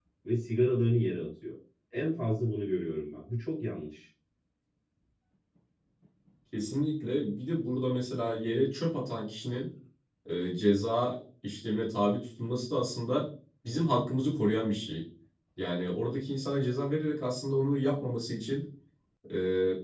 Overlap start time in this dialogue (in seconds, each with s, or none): none